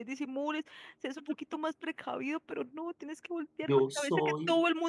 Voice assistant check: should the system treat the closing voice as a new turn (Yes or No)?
No